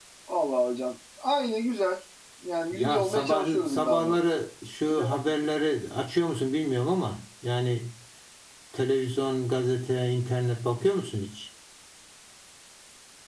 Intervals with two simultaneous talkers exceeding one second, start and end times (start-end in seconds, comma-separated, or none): 2.7-4.2